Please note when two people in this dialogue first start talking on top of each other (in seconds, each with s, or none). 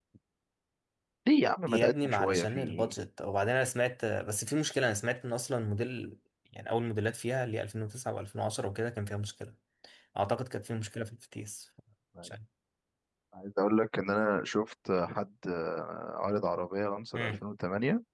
1.7 s